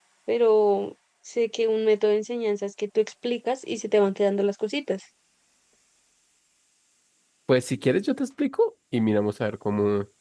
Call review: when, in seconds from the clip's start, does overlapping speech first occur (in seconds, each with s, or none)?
none